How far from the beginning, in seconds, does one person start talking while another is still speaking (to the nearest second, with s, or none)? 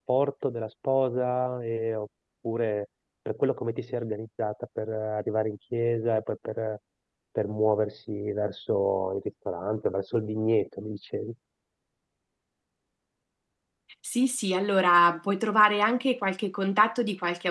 none